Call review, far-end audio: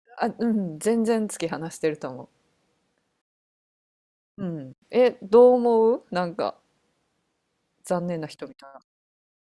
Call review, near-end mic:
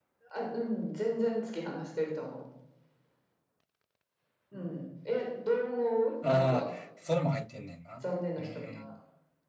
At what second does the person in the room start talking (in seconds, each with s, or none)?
6.2 s